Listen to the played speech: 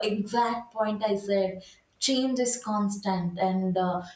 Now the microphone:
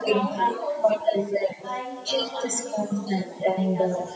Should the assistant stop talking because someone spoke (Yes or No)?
Yes